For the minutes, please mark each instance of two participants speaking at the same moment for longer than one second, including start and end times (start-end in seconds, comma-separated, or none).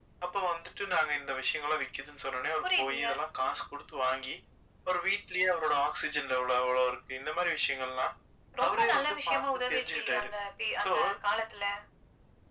8.6-10.3